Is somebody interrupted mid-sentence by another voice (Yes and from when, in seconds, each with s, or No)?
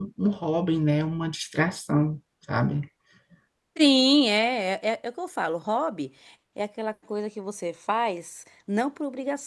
No